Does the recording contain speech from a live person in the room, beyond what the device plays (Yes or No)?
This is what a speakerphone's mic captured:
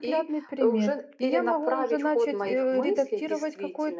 Yes